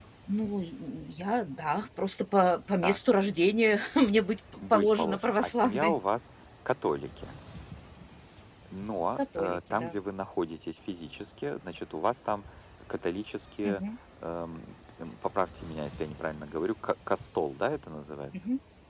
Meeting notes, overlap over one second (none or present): present